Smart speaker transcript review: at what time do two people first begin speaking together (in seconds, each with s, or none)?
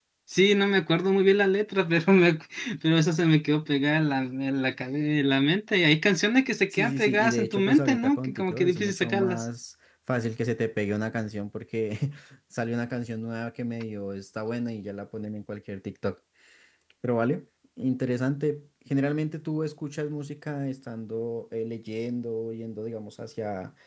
6.7 s